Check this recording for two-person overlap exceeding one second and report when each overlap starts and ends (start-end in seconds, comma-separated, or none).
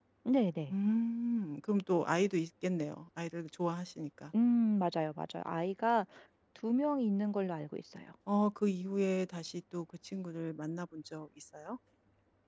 none